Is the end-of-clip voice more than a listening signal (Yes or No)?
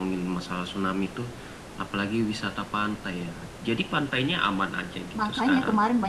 Yes